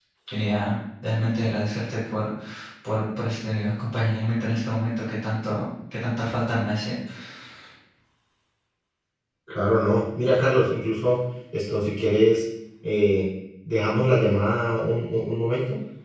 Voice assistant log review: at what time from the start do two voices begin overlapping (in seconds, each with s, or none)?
none